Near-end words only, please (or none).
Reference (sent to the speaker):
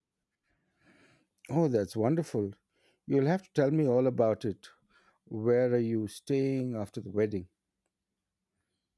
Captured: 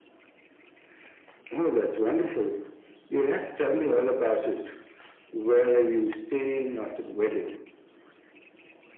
none